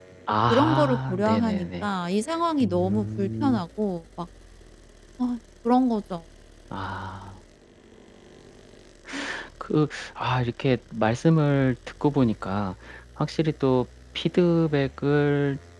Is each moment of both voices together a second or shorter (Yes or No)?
No